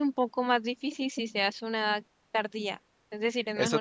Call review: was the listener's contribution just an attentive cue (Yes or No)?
No